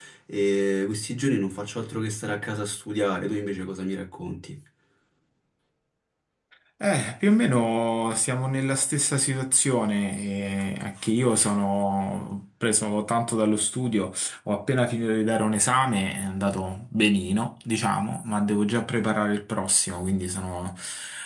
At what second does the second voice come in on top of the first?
none

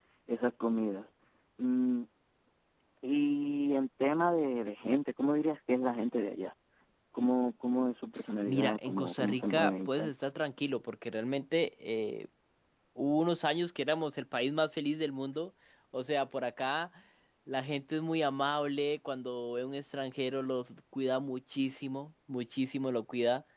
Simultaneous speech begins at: 8.5 s

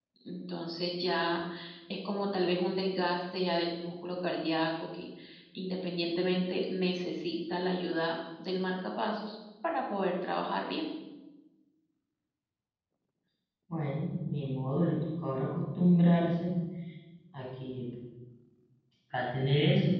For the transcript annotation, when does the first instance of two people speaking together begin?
none

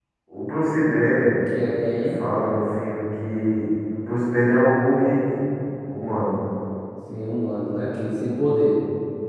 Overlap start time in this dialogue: none

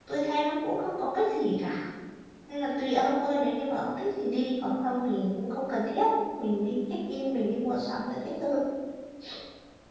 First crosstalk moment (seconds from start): none

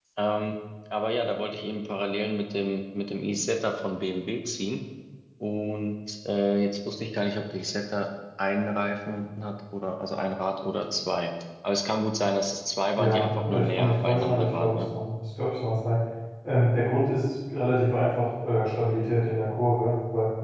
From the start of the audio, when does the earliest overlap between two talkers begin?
13.0 s

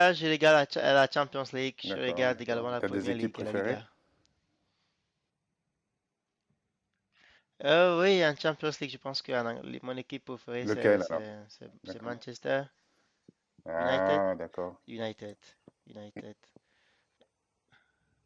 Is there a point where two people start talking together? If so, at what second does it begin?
1.8 s

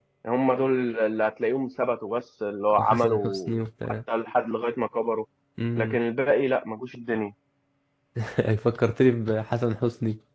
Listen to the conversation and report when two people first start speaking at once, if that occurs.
2.7 s

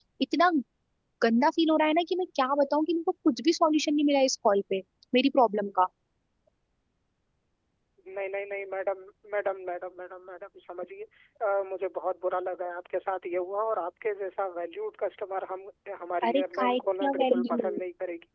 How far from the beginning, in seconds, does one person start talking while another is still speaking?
16.2 s

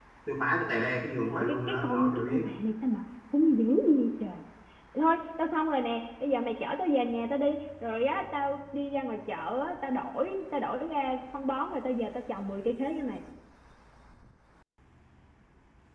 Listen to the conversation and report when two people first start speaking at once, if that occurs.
1.3 s

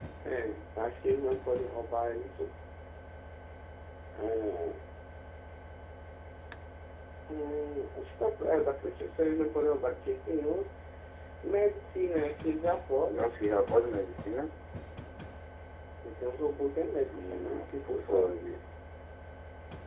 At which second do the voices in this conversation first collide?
17.1 s

